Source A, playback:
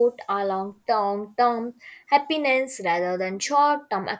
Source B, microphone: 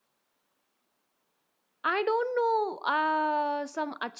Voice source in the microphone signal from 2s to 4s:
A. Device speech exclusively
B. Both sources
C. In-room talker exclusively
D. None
C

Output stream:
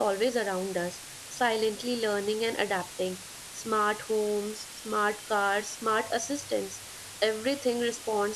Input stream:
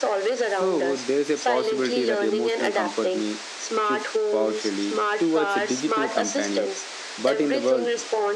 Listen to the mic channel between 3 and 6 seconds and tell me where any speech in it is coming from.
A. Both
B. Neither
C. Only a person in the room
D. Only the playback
A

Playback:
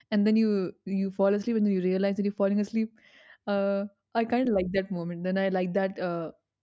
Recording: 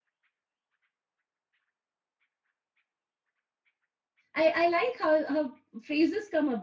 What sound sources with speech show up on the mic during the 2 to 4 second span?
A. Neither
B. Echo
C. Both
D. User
A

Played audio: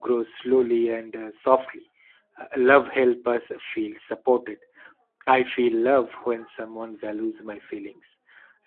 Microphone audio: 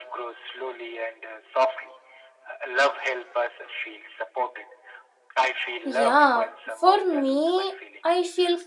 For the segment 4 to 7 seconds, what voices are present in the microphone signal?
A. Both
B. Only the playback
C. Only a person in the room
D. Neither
A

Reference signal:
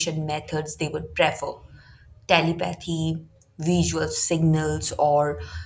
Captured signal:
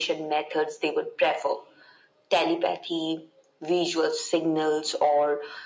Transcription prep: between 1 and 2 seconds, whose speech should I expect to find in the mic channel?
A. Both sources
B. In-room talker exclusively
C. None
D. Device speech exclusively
D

